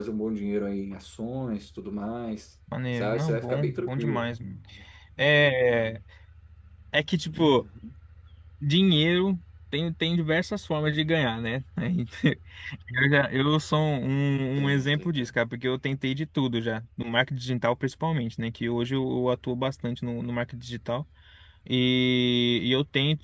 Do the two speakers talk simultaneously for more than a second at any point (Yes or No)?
Yes